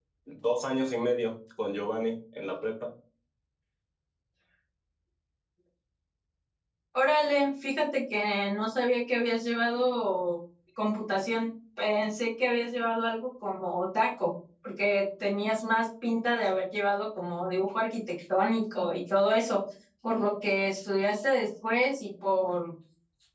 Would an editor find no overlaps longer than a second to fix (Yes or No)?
Yes